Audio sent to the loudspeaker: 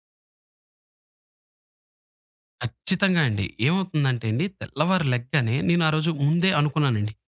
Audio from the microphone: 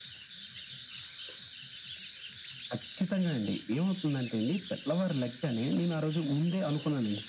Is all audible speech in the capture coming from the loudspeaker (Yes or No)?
Yes